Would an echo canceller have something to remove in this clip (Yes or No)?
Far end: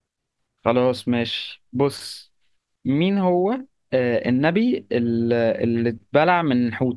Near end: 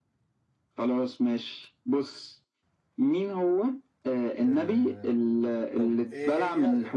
Yes